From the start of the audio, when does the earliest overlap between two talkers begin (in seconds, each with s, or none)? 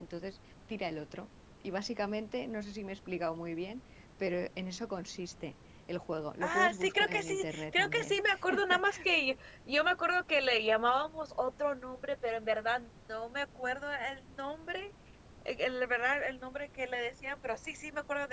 6.4 s